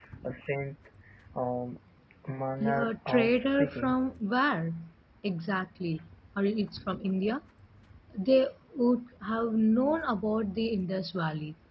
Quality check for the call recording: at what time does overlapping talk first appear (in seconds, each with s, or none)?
2.6 s